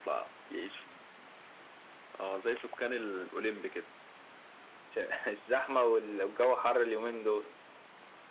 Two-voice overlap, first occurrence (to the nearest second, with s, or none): none